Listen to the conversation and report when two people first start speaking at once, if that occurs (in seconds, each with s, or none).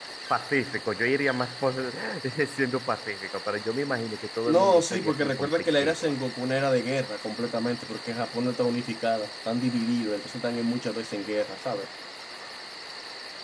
4.5 s